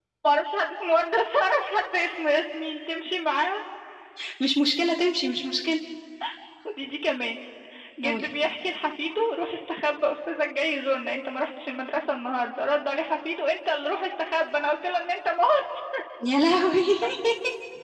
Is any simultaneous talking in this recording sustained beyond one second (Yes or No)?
No